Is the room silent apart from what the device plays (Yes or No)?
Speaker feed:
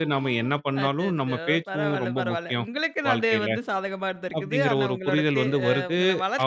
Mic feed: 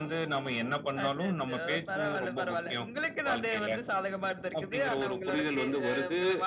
Yes